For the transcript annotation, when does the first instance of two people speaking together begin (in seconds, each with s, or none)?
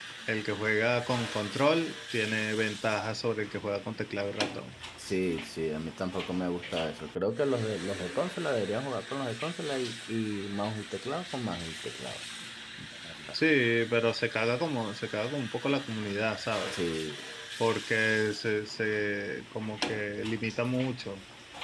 none